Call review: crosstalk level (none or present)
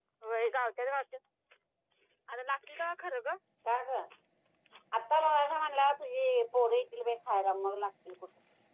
none